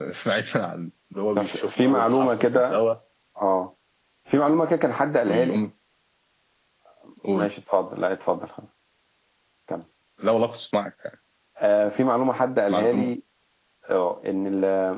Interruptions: present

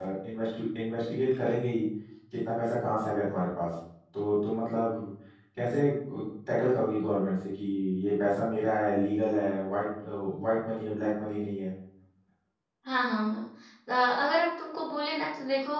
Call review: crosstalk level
none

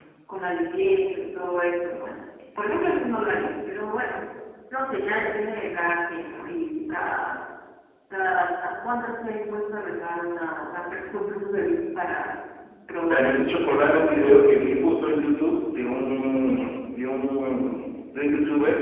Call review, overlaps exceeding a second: present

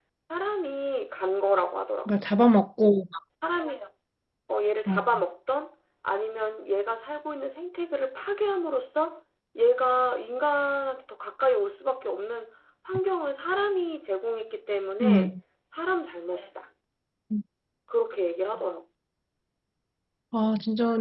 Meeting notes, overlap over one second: none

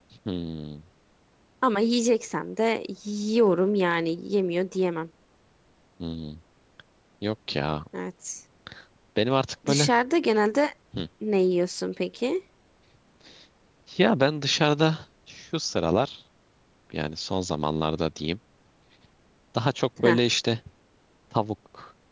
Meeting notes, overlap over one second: none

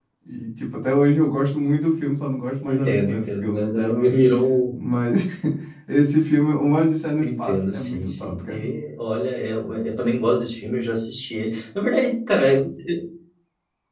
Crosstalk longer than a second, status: present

